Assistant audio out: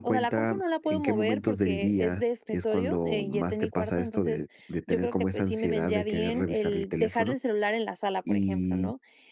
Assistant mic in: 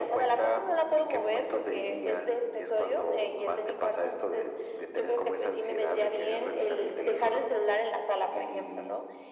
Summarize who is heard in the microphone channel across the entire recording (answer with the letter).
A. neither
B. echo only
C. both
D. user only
B